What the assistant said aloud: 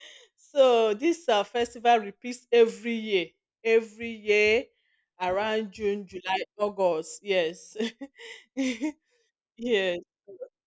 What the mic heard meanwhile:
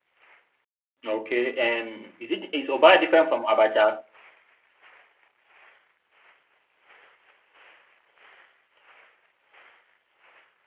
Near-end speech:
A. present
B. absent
A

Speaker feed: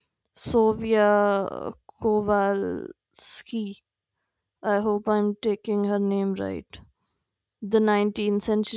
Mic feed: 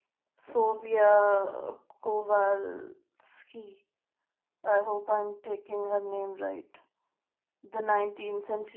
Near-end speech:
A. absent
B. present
A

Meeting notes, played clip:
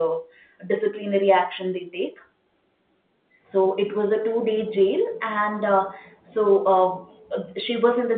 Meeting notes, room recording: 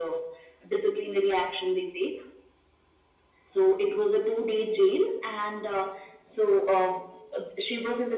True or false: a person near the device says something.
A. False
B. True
A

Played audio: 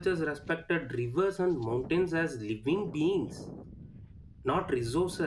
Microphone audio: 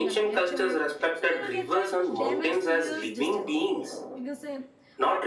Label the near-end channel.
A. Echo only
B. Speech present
B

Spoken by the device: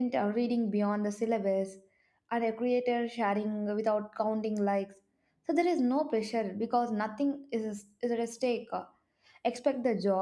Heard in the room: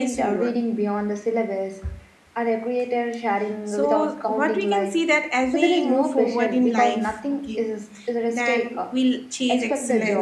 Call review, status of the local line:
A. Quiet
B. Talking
B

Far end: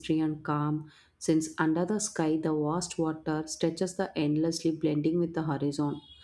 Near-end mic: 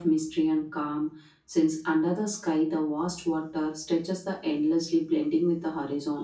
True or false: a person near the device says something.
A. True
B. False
B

